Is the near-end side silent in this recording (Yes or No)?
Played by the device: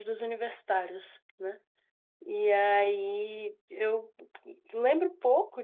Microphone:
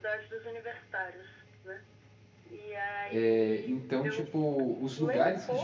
No